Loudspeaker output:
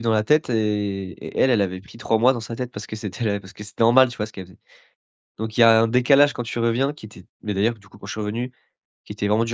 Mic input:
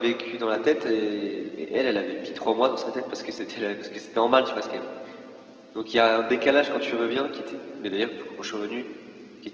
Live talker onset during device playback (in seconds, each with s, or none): none